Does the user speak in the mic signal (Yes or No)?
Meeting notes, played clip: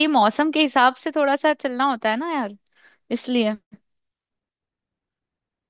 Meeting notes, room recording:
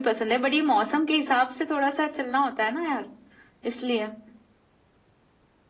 No